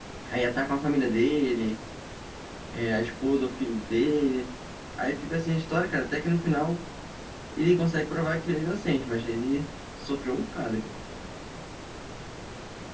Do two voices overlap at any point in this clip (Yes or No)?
No